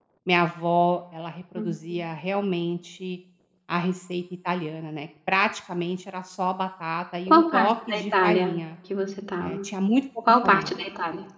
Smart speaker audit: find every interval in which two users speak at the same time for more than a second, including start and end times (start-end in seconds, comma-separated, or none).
7.3-8.6